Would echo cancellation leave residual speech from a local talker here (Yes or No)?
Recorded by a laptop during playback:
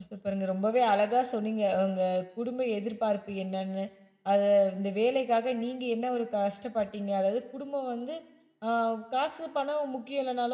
Yes